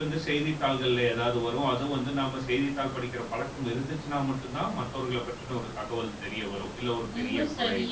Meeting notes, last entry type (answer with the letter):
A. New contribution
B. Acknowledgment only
A